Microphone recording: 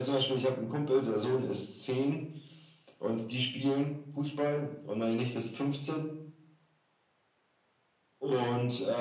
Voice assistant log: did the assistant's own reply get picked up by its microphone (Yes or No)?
Yes